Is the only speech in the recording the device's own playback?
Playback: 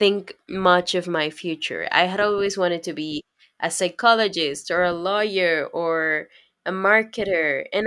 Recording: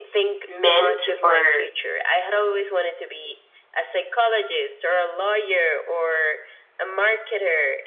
No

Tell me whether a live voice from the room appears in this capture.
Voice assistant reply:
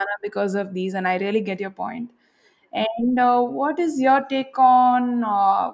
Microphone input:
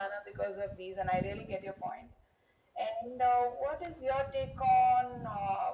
No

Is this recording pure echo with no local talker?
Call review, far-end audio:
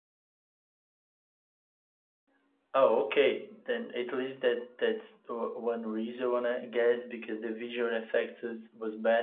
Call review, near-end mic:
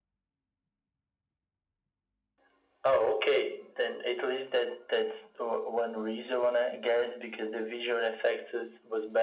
Yes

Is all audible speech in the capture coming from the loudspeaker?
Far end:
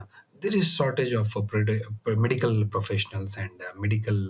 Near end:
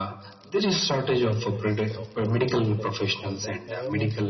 No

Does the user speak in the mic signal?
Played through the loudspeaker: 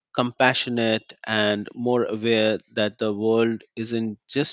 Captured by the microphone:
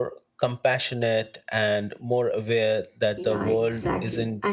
Yes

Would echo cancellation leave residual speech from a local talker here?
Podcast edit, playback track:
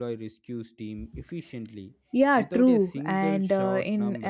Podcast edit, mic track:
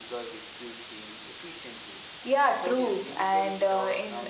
No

